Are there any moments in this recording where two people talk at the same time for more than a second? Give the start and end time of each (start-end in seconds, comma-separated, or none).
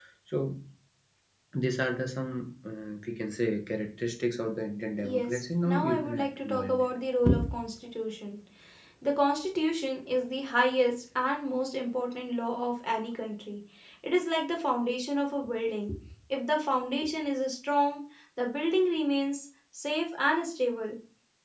5.0-6.9